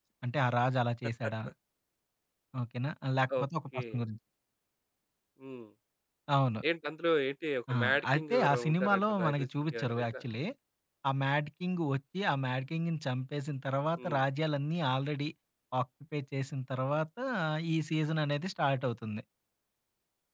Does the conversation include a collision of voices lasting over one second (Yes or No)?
Yes